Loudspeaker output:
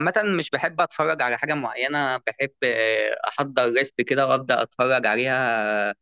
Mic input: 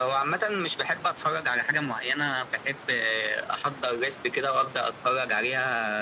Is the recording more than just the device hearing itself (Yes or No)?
No